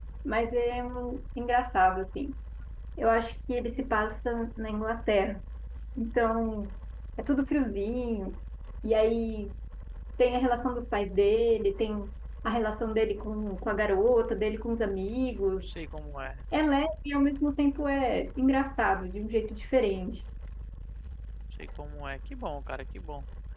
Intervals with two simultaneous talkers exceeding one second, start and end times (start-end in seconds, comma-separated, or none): none